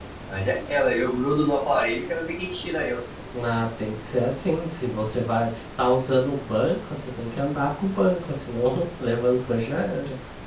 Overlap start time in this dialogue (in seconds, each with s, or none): none